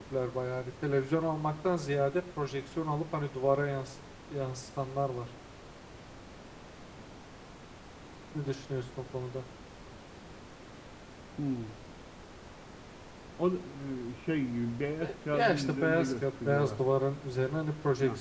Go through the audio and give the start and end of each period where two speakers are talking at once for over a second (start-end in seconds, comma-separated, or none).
15.0-16.8